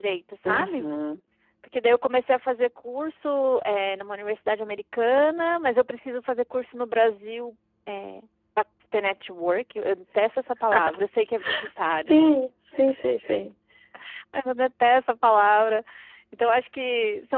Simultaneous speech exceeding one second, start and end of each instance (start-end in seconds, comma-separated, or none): none